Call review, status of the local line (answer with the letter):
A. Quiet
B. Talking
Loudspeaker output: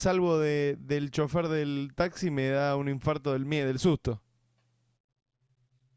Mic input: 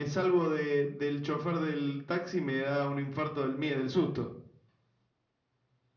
A